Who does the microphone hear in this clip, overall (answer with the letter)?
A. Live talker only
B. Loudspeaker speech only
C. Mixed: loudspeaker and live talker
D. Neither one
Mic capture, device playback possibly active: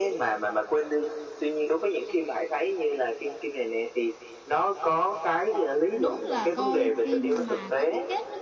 C